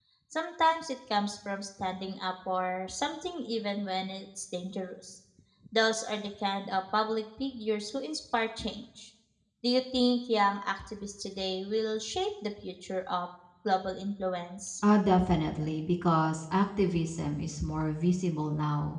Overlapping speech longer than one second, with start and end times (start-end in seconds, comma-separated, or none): none